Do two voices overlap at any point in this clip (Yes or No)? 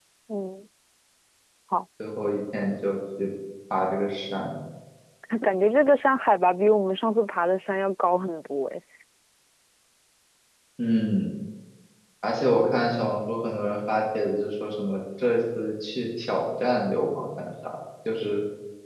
No